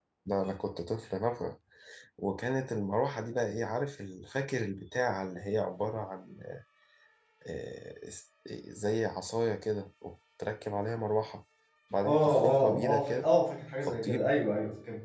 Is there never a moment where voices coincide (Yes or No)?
No